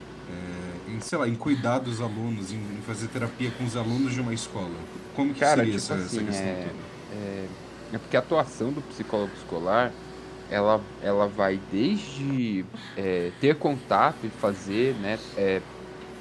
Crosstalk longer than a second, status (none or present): present